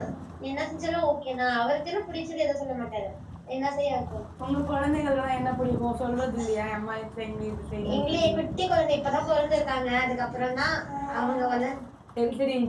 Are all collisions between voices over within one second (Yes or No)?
Yes